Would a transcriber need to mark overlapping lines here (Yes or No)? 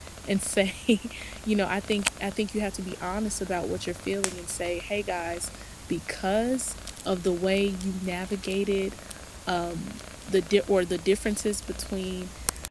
No